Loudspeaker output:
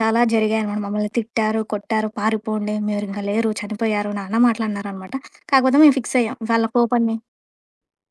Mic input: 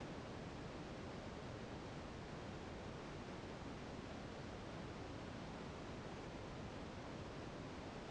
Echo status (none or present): none